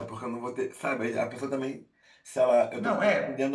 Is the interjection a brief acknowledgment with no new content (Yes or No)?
Yes